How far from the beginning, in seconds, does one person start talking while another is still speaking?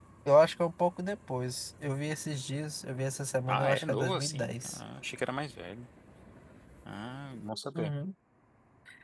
3.5 s

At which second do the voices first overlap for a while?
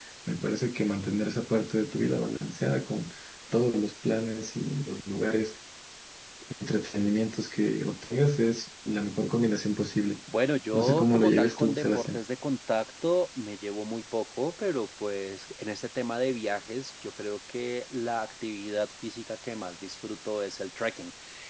10.7 s

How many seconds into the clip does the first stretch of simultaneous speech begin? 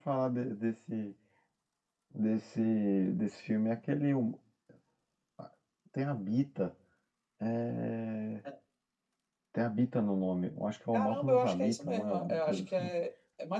10.9 s

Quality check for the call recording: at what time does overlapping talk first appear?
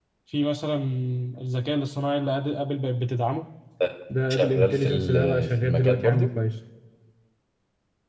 4.3 s

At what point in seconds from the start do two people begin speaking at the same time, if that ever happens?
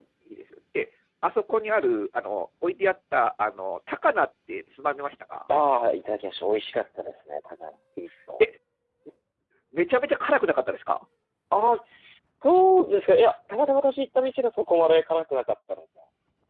none

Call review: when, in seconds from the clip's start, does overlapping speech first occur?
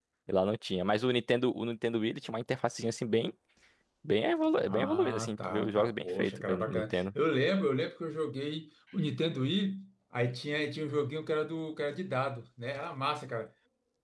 4.7 s

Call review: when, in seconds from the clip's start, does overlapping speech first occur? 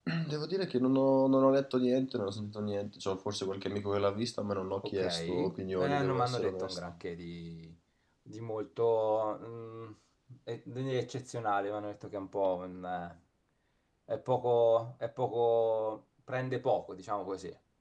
4.8 s

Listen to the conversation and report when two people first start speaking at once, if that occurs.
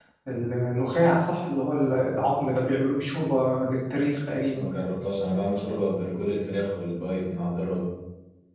none

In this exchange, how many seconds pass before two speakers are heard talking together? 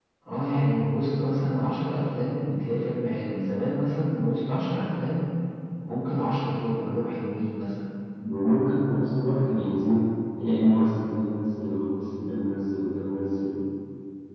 none

